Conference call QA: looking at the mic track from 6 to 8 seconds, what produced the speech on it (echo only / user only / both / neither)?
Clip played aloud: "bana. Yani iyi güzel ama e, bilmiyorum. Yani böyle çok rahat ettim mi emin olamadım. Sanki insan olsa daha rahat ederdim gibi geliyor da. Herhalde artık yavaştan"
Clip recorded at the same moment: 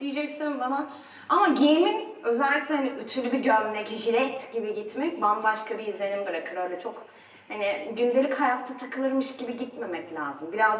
user only